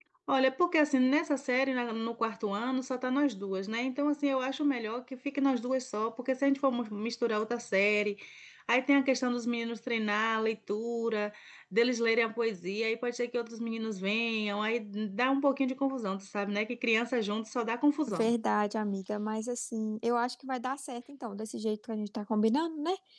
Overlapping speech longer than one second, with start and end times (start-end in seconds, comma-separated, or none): none